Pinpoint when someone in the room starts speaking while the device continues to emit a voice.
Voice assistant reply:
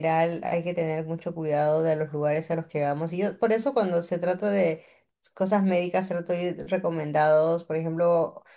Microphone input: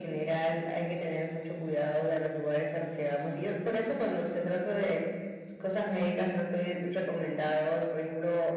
3.7 s

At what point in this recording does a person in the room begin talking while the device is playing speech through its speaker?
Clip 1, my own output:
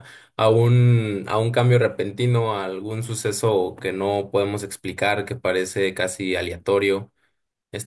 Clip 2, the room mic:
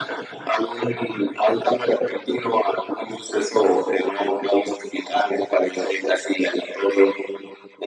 none

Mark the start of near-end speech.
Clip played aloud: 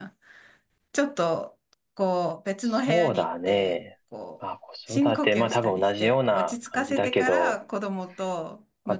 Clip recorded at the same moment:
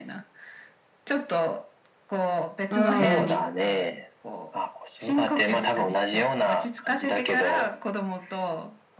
2.7 s

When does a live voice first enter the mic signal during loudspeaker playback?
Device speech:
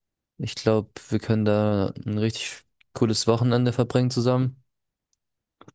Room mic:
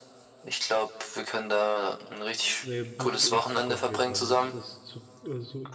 2.6 s

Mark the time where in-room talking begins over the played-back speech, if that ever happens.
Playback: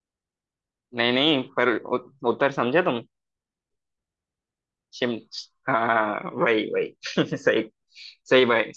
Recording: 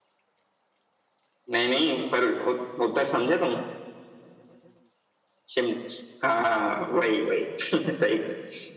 none

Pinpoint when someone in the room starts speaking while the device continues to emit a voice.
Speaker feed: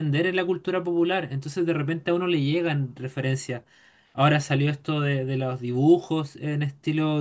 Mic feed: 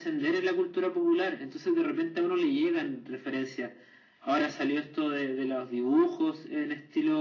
none

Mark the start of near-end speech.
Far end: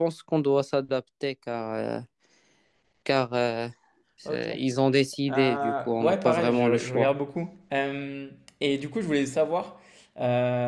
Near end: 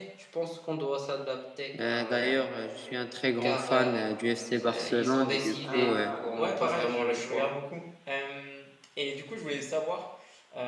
1.8 s

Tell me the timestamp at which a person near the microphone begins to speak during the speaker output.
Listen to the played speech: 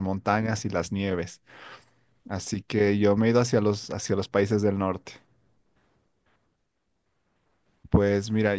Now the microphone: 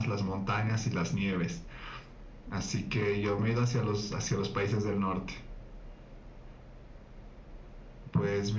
none

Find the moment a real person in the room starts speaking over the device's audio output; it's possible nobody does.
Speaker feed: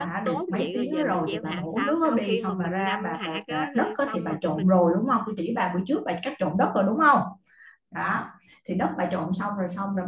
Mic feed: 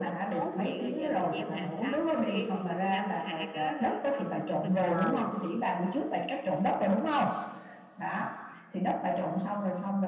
4.9 s

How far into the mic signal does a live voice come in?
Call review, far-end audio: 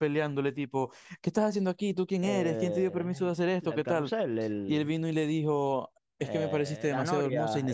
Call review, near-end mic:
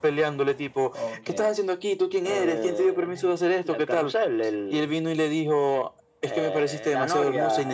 0.9 s

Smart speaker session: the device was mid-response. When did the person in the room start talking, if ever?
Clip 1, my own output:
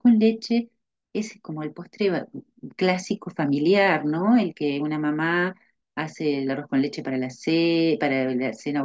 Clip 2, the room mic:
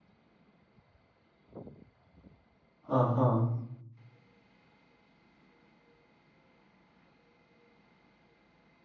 2.9 s

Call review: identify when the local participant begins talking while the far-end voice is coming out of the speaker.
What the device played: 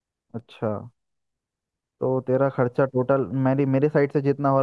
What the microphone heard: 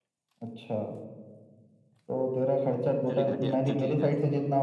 3.1 s

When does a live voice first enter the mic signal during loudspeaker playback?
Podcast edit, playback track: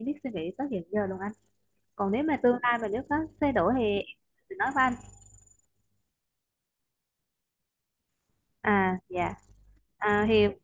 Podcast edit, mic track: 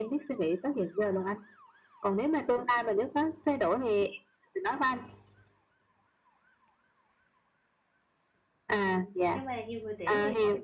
8.8 s

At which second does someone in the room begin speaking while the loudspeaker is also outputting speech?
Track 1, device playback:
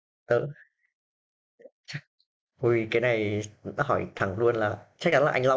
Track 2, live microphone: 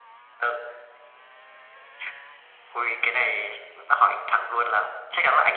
none

